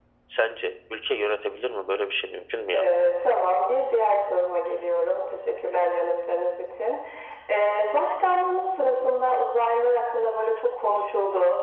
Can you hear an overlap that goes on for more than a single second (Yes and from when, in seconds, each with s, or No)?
No